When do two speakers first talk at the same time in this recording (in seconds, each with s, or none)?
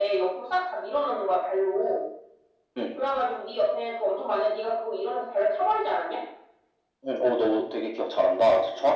none